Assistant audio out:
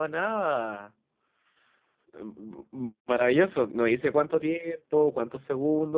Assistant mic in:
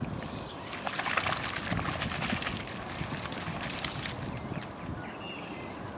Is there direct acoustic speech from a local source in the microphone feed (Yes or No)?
No